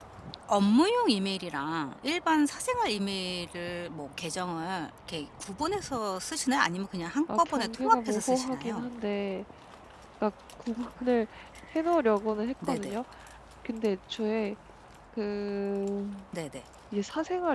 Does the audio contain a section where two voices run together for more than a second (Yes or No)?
Yes